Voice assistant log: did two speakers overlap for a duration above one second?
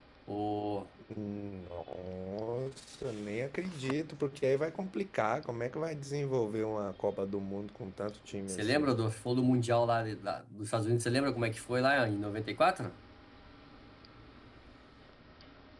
No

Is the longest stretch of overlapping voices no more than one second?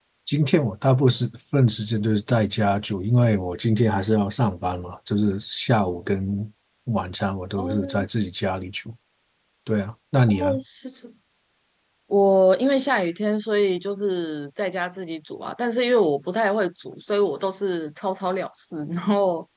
Yes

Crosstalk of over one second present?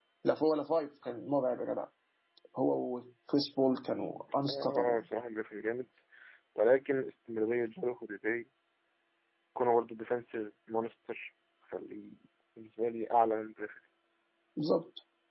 No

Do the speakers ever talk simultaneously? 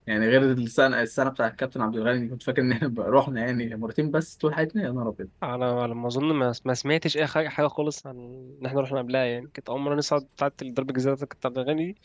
No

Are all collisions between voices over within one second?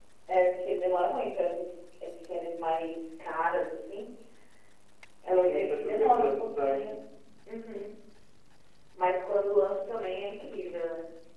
No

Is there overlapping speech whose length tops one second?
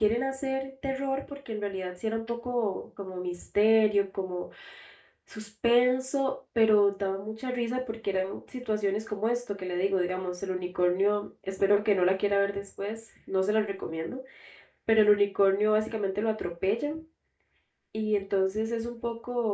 No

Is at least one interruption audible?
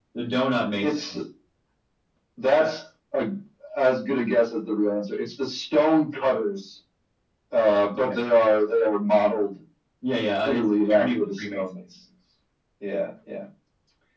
Yes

